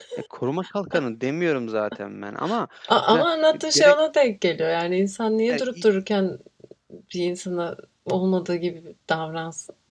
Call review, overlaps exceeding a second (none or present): none